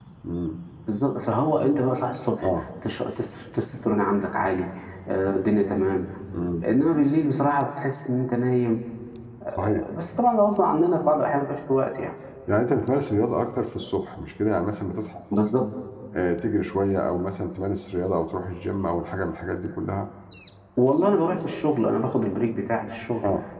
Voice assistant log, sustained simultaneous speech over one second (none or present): none